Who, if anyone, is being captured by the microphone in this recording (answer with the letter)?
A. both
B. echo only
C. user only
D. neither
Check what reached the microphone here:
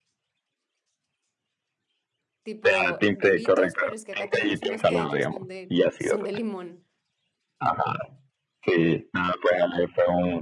A